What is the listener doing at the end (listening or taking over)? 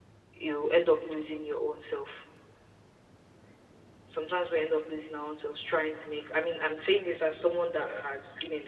listening